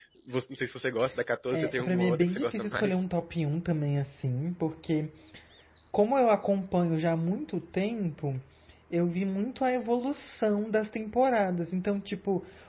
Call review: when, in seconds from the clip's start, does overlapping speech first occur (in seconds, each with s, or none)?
1.5 s